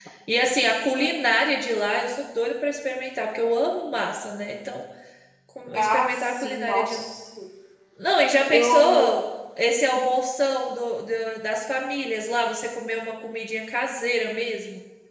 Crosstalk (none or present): present